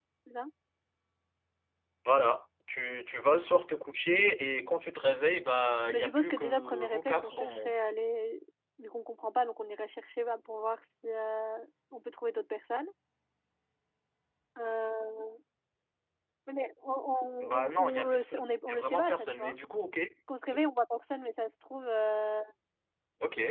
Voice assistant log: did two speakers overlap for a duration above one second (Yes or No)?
Yes